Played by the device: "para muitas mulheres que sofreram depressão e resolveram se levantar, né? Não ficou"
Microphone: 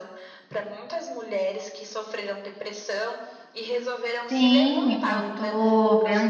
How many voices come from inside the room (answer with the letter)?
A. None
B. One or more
B